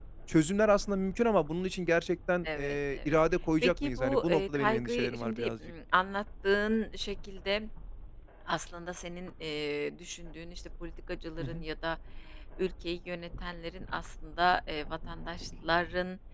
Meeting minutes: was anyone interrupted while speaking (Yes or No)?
Yes